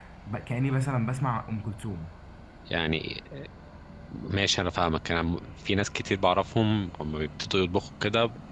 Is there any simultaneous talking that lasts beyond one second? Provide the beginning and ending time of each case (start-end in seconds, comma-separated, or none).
none